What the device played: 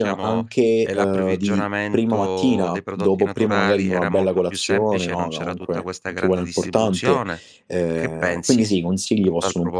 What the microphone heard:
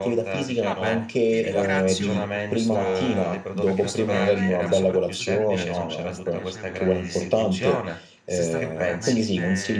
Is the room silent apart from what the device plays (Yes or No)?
No